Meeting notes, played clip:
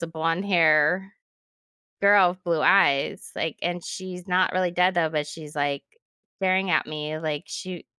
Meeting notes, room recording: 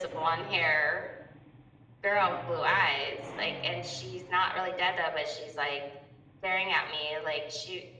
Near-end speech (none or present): none